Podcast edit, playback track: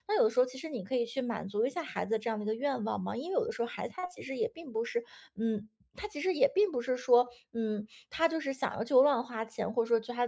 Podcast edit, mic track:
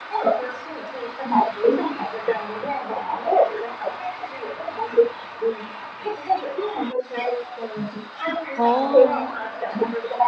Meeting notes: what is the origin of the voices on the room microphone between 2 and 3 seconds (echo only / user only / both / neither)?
echo only